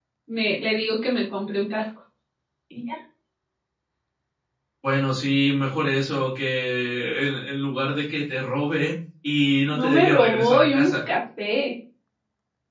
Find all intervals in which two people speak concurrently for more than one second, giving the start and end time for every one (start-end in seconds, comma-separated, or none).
9.7-10.9